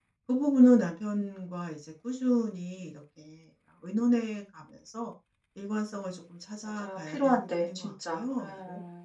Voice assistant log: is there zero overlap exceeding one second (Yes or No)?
No